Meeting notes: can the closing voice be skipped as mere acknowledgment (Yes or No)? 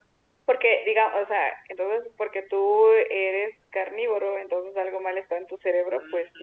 No